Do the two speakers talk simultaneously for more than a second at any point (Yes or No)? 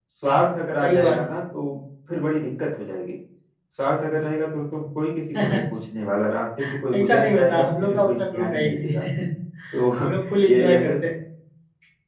Yes